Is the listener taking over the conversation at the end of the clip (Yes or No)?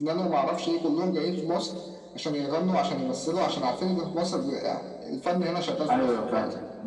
Yes